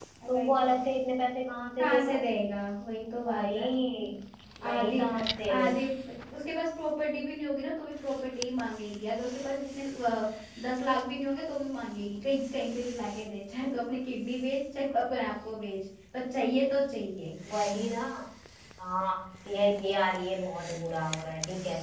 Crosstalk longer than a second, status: none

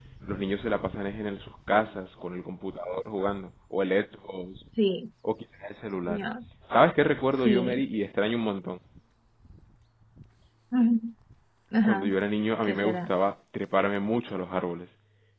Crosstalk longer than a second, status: none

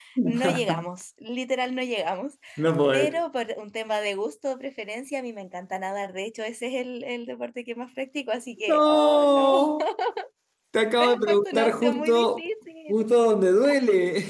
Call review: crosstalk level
present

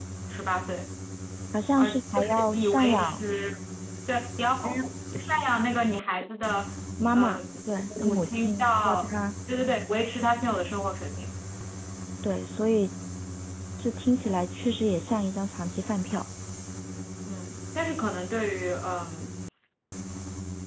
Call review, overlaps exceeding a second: present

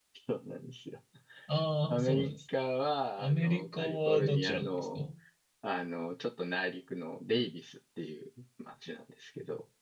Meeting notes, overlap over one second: present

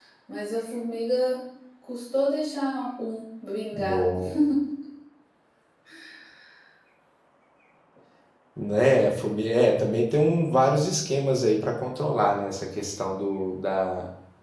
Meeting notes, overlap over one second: none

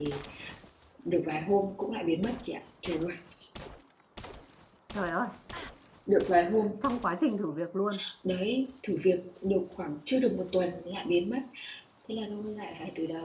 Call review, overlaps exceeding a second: none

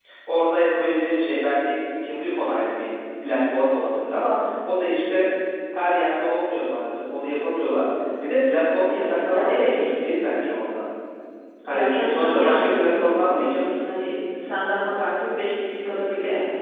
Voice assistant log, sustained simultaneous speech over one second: present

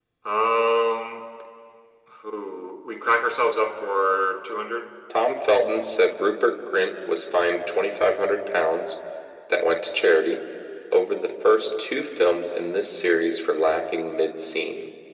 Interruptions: none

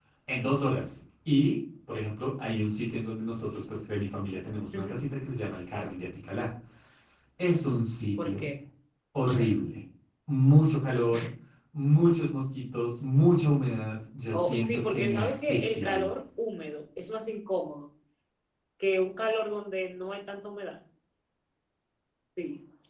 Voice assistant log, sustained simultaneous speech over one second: present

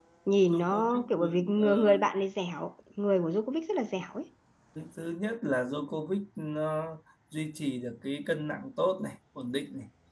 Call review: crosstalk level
present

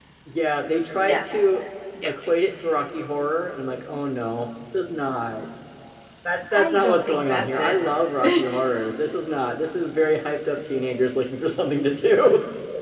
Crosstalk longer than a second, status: present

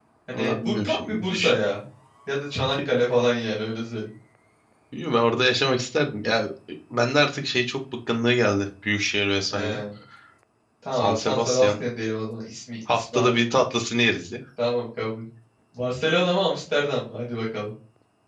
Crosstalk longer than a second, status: present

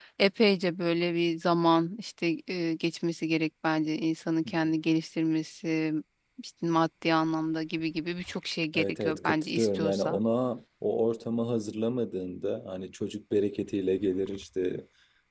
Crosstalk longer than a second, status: present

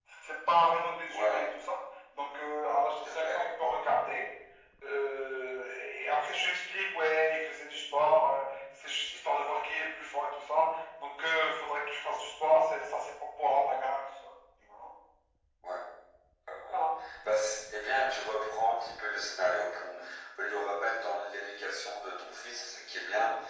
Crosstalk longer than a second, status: none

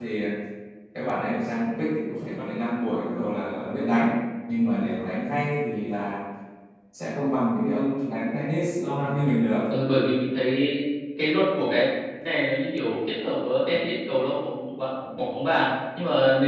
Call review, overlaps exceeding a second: none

